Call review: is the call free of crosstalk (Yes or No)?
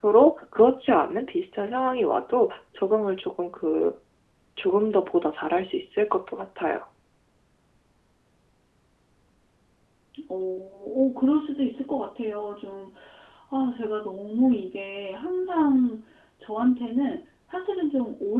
Yes